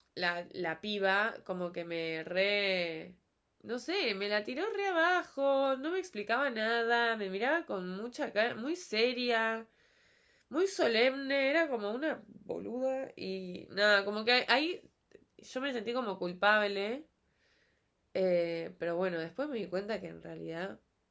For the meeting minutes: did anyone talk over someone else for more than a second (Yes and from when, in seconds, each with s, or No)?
No